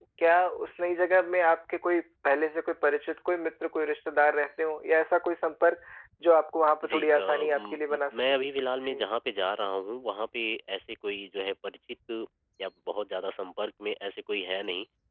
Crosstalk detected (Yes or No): Yes